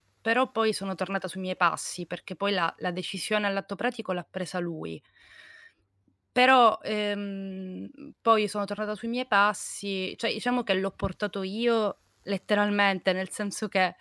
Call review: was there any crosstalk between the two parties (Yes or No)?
No